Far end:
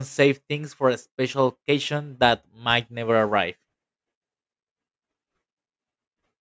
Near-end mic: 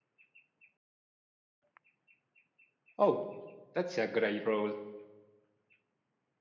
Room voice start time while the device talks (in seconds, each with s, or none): 3.0 s